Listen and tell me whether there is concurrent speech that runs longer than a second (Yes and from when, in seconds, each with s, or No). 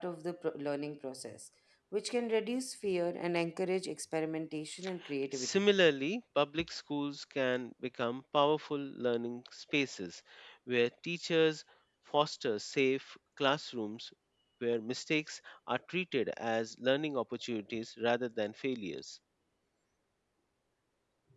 No